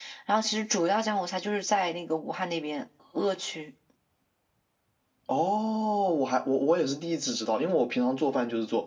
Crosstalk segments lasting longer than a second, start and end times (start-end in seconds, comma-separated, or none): none